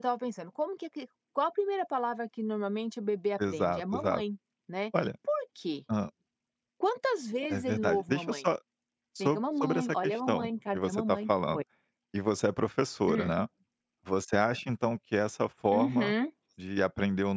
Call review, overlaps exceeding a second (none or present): present